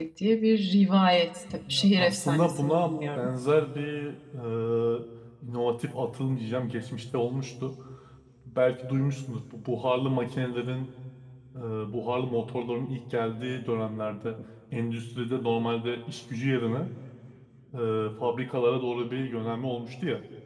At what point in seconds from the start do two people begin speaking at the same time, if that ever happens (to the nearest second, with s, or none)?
2 s